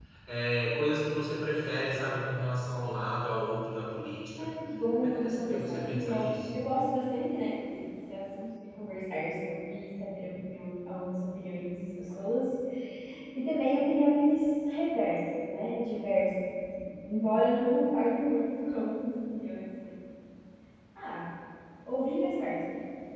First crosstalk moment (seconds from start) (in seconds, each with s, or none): 5.0 s